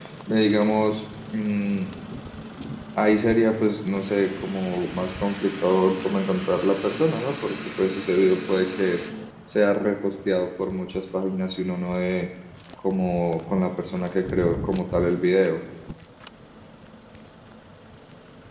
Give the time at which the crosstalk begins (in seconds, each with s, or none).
none